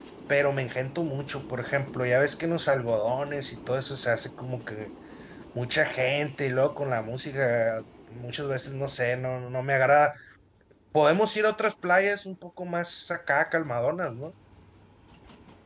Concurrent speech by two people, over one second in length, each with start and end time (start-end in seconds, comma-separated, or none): none